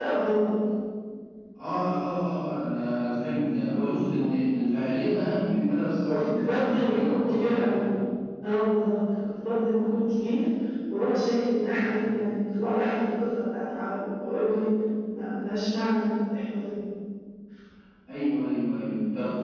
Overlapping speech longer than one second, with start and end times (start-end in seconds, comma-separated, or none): 6.1-7.7